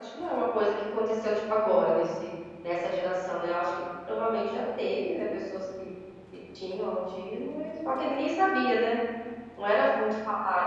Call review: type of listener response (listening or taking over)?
listening